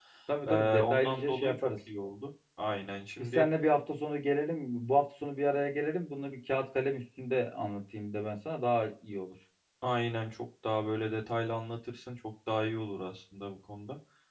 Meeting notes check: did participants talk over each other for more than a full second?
Yes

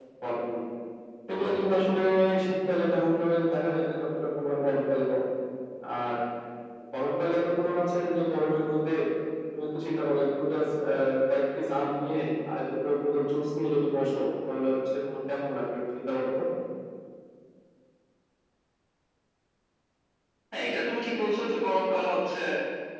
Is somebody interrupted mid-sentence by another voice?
No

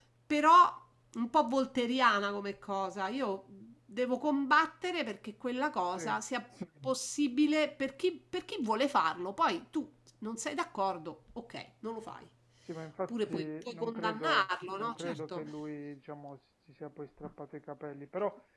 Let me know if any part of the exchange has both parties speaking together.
Yes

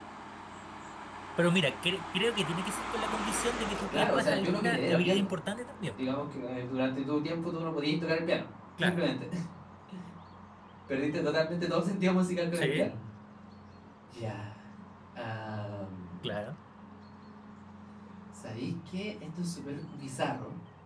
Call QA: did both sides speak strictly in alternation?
No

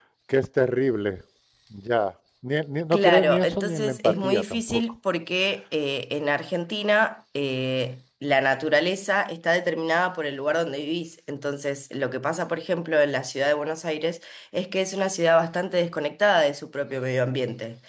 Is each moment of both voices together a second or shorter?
No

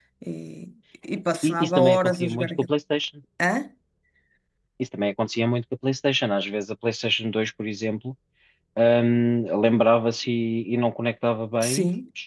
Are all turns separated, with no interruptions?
No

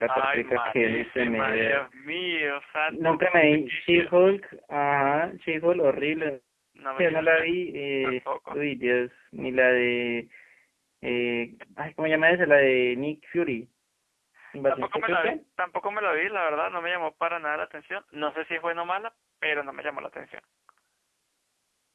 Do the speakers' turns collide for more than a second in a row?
Yes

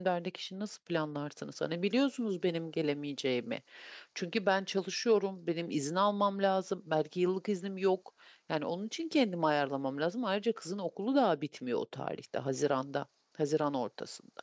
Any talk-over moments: No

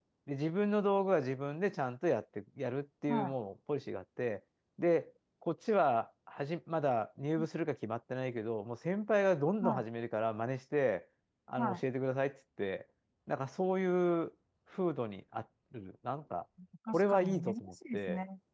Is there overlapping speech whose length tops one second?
Yes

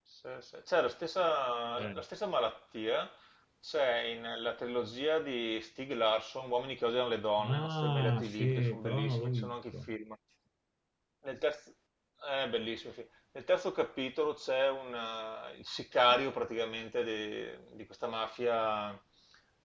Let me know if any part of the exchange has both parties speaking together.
Yes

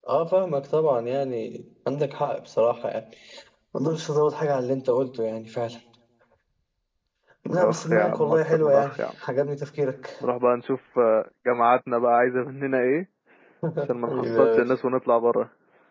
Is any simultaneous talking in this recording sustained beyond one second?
Yes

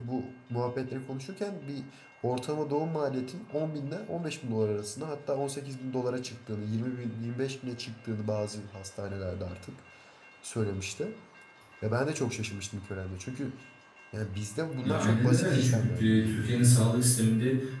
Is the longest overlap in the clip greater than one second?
Yes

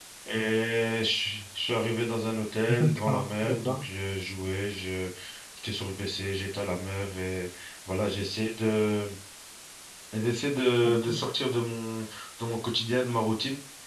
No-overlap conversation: No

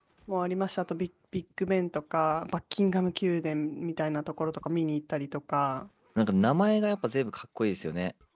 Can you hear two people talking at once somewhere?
No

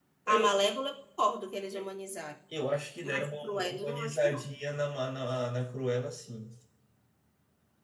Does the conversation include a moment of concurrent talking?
Yes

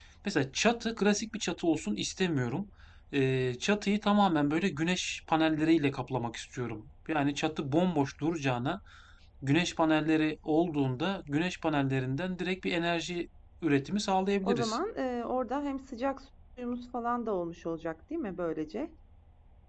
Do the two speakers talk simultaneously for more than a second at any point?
No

